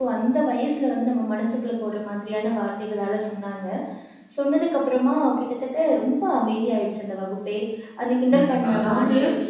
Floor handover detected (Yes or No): Yes